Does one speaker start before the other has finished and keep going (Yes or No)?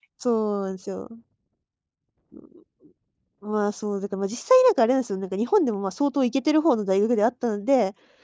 No